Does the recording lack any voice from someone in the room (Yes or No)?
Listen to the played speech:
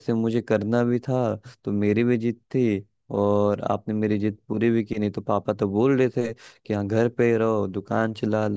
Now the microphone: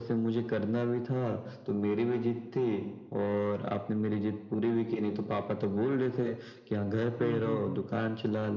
No